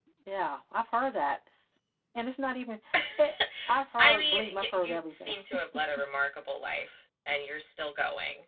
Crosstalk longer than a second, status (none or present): present